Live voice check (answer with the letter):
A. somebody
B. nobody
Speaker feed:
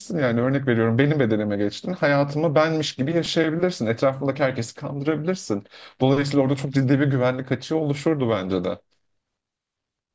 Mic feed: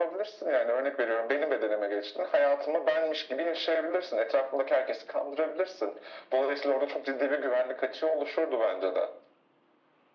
B